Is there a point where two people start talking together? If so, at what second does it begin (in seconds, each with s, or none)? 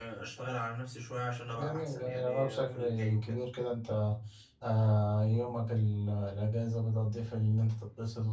1.6 s